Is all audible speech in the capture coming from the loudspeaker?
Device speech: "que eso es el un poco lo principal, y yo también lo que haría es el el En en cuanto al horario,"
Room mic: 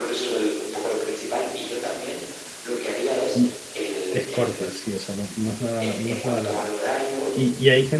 No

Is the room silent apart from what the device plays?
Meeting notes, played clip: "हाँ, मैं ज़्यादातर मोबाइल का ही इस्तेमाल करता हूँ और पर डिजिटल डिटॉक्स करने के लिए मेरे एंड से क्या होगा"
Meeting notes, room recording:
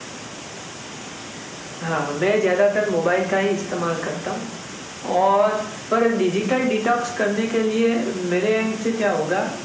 Yes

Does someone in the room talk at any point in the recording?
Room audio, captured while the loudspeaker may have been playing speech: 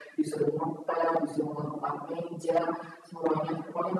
No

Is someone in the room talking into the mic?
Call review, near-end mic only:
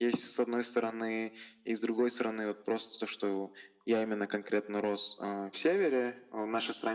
No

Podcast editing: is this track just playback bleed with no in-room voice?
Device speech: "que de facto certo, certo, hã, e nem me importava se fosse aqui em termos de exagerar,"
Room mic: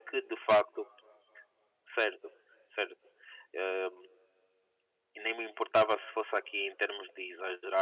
Yes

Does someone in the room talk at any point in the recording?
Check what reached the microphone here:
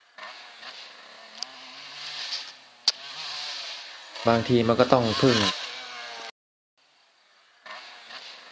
Yes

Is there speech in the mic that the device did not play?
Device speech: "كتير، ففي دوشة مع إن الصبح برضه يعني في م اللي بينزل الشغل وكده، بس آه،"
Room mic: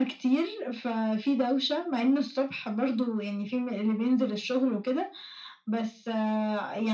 No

